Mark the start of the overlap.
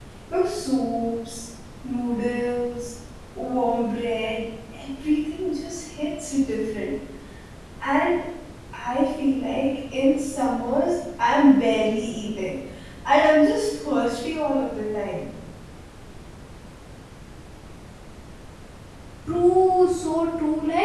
none

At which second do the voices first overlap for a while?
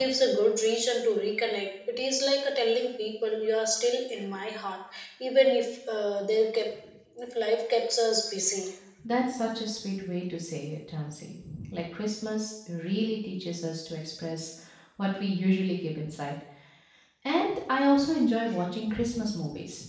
none

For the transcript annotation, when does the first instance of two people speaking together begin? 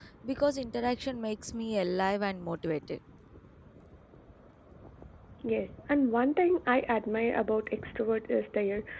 none

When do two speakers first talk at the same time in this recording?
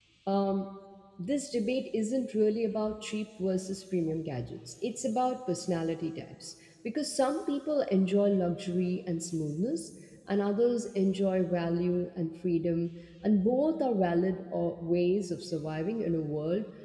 none

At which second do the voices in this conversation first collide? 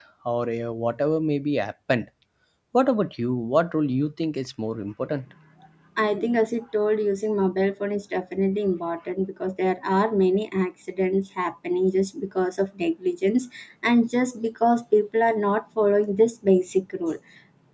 none

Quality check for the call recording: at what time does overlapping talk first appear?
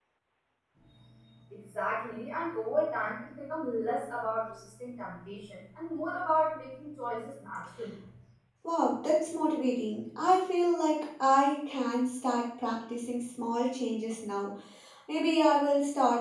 none

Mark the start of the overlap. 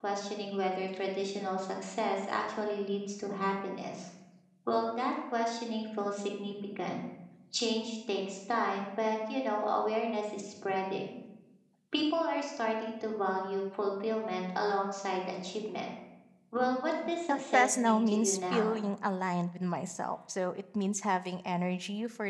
17.3 s

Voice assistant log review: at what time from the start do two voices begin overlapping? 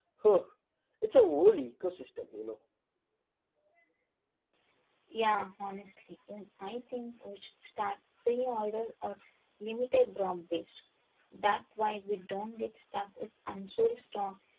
none

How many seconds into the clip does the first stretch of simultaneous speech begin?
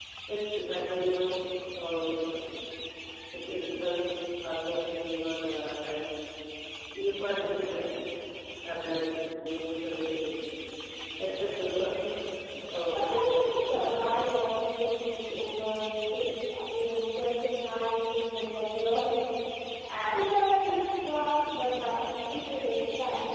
13.0 s

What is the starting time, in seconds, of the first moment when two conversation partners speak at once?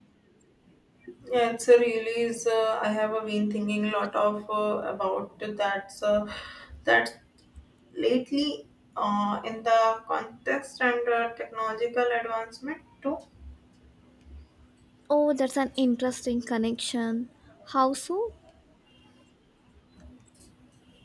none

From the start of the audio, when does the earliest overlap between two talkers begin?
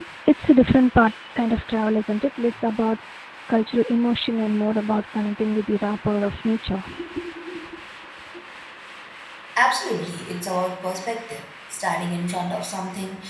none

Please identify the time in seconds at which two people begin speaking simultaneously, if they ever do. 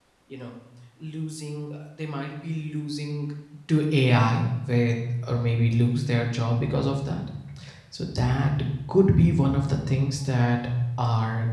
none

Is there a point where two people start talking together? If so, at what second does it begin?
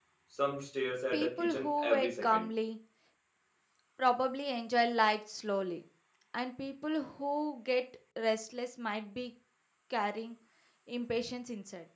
1.1 s

